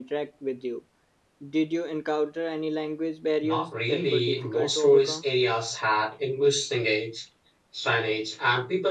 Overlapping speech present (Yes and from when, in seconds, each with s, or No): Yes, from 3.4 s